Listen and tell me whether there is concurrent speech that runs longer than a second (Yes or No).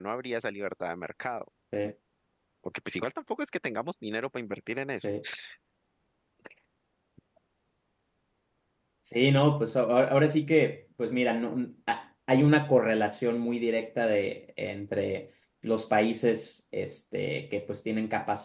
No